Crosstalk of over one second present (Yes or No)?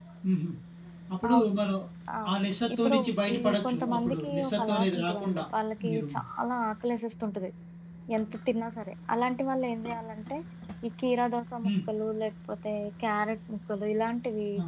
Yes